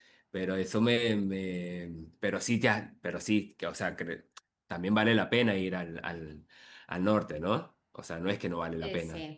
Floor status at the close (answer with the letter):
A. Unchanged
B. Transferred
B